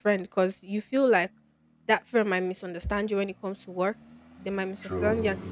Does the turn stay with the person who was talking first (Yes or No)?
Yes